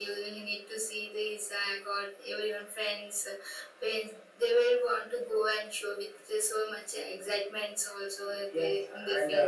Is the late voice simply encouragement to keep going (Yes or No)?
No